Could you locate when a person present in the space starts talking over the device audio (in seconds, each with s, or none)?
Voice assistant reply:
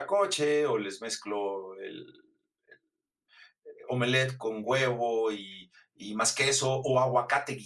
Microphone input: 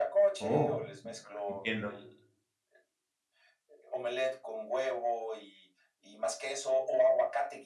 0.4 s